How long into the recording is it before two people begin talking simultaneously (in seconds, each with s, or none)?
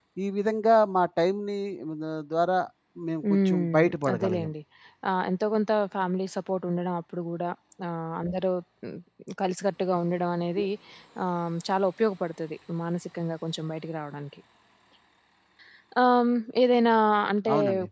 3.3 s